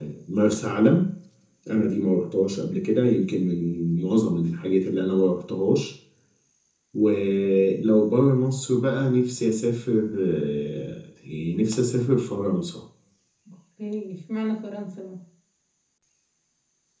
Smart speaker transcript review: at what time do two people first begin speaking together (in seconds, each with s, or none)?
none